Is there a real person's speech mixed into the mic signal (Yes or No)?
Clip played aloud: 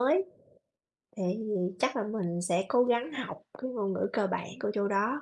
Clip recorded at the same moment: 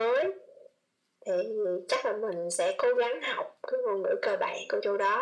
No